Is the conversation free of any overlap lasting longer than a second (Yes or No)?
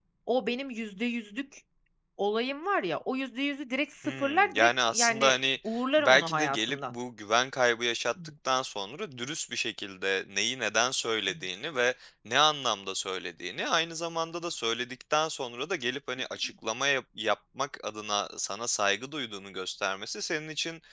No